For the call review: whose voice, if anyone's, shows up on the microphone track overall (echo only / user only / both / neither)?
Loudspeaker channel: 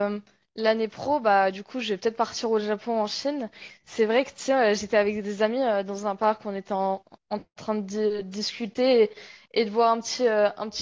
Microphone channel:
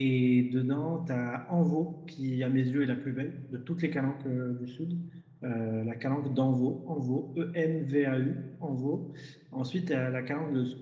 user only